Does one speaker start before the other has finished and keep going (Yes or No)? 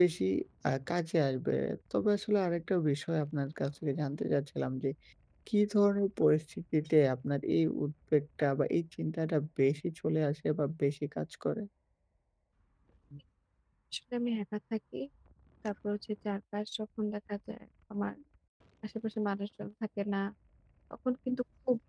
No